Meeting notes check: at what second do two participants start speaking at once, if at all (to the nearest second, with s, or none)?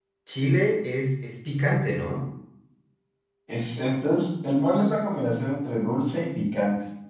none